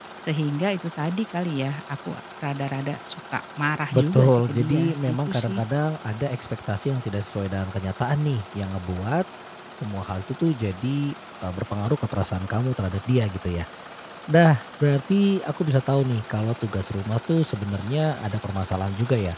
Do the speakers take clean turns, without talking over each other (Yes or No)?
No